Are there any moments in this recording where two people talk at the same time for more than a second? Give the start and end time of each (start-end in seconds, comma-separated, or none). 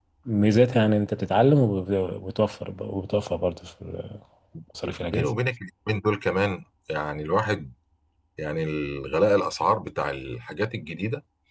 none